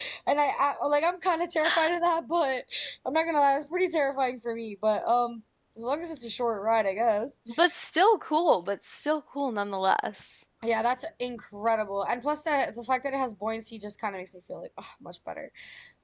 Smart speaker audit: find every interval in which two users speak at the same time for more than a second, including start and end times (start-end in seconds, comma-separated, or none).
none